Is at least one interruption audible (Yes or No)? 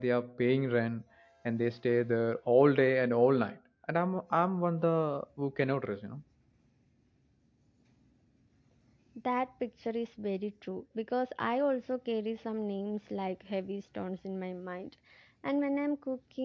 No